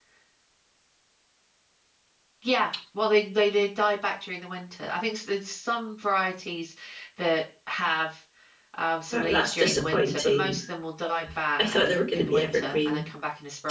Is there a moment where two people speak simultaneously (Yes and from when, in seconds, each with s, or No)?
Yes, from 9.1 s